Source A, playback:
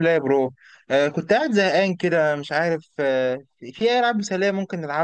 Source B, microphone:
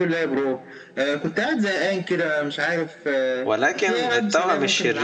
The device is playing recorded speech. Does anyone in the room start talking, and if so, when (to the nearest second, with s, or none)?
3 s